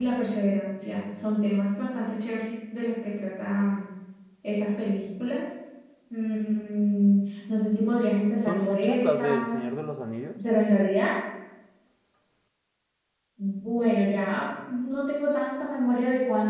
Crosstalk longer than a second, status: present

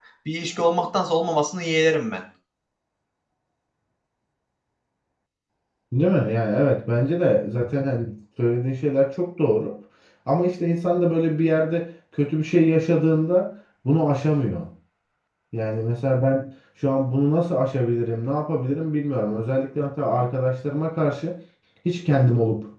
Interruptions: none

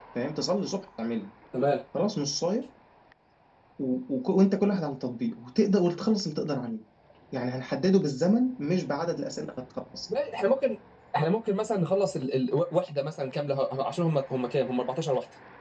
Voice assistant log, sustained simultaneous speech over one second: none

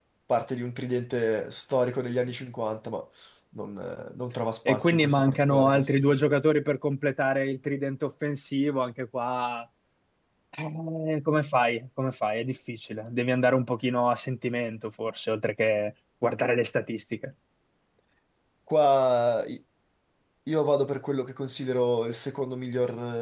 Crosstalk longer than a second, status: present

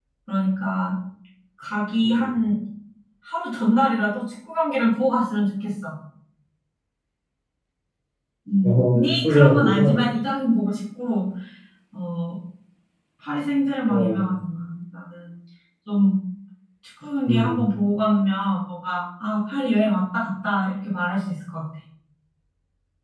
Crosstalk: present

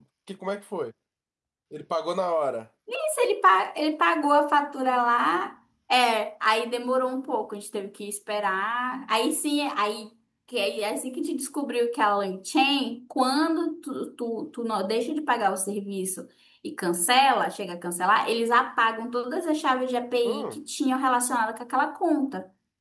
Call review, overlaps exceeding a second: none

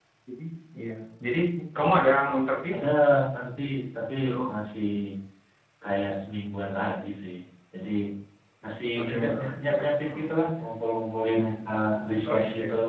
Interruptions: present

